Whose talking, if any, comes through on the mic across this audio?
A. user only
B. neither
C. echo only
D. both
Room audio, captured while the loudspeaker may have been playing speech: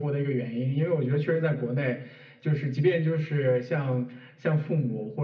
C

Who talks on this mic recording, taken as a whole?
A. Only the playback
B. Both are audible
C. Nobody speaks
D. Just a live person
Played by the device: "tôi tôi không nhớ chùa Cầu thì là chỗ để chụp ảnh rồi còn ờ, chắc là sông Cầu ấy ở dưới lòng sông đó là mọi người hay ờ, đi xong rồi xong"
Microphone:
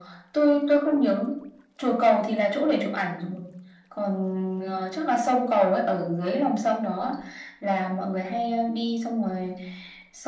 A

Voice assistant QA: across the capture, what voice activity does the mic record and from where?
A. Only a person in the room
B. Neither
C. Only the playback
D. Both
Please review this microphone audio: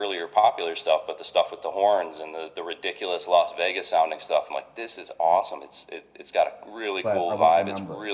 D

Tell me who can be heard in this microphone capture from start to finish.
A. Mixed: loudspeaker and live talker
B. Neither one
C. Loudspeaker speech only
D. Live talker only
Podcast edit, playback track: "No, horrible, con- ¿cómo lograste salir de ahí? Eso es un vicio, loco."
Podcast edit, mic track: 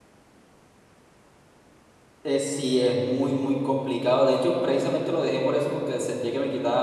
D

